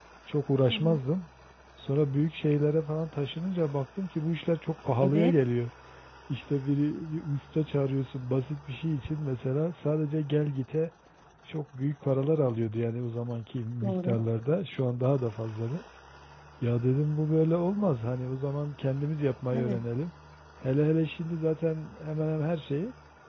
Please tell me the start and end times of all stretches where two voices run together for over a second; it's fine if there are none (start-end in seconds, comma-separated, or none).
none